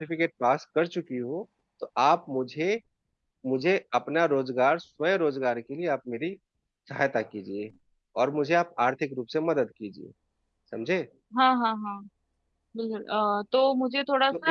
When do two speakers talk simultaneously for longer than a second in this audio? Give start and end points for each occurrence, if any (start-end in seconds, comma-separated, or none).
none